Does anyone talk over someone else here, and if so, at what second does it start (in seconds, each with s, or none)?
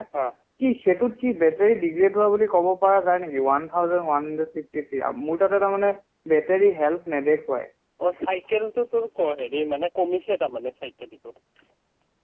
none